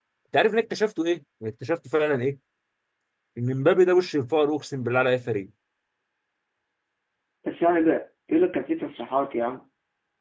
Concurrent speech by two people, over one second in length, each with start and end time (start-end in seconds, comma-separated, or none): none